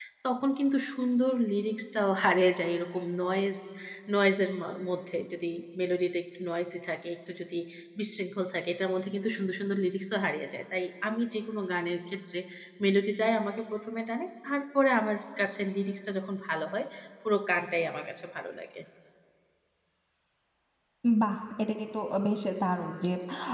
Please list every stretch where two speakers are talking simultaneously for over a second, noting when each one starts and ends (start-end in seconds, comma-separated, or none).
none